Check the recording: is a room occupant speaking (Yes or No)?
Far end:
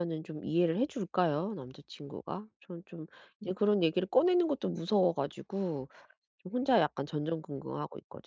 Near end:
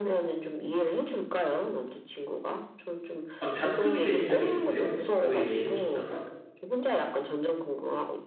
Yes